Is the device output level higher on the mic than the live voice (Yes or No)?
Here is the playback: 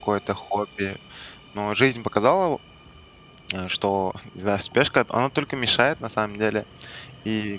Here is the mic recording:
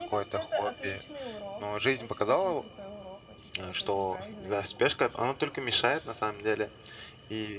Yes